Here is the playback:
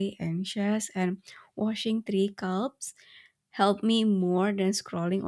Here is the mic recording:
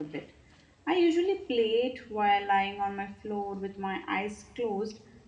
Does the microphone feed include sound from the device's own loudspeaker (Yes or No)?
No